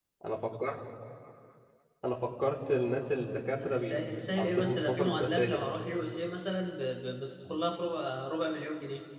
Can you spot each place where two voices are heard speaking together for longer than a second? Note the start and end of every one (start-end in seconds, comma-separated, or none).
3.5-5.8